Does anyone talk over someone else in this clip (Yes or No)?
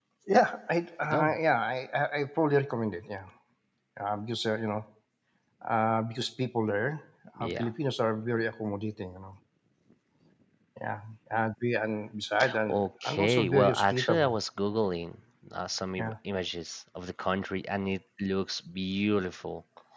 Yes